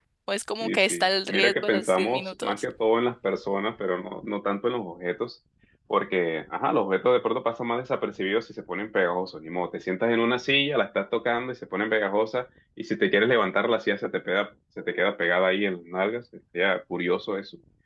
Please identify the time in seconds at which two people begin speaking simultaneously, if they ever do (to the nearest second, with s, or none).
1 s